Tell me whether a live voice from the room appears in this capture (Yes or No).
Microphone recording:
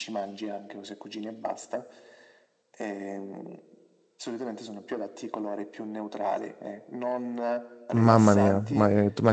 Yes